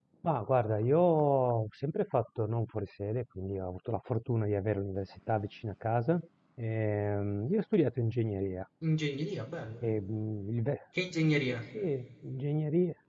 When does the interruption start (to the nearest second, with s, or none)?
none